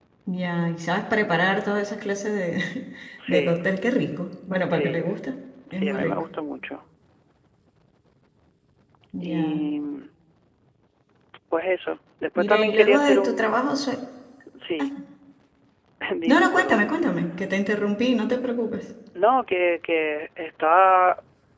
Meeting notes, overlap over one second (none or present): present